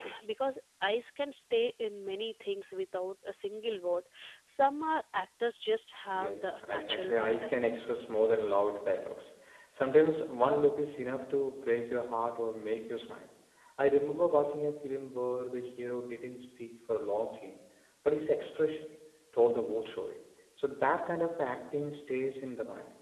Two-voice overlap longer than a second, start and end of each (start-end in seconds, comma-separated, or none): 6.1-7.7